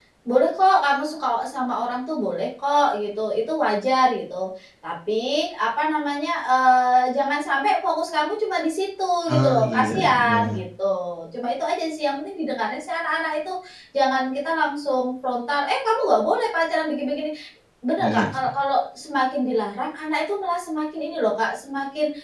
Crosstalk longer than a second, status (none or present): present